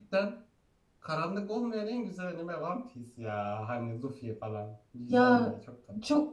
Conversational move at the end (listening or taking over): taking over